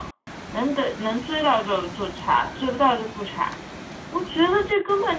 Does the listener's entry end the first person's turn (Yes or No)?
No